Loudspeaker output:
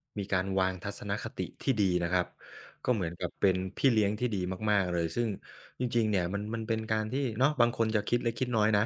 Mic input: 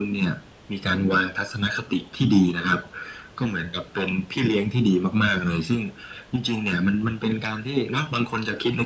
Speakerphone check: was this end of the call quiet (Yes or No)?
Yes